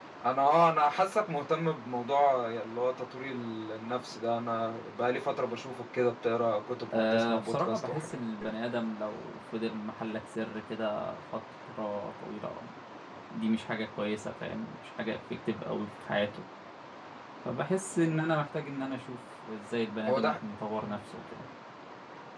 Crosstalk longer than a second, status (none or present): present